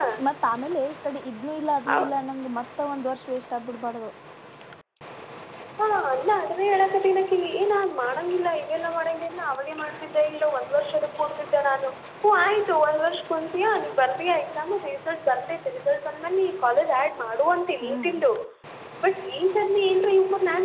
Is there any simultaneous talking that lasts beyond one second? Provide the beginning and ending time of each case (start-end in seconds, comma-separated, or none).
none